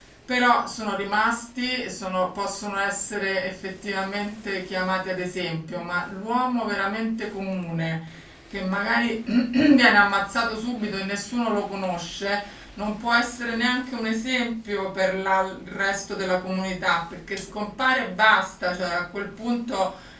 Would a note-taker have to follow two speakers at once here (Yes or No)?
No